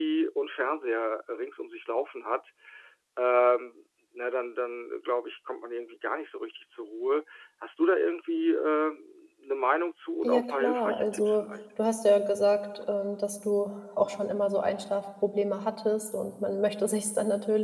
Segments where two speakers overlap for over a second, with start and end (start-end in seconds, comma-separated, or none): 10.2-11.4